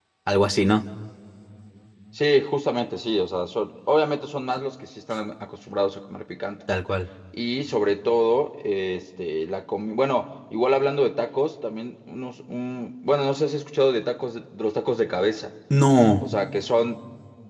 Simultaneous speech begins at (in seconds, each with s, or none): none